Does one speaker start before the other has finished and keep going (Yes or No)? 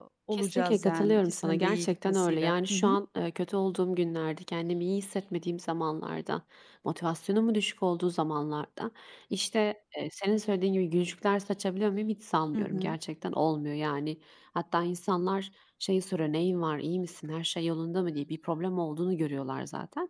Yes